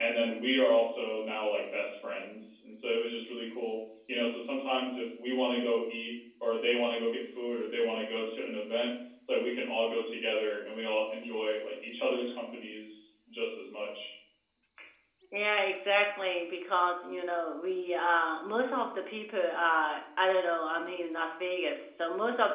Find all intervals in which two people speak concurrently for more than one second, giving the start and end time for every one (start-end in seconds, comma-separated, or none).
none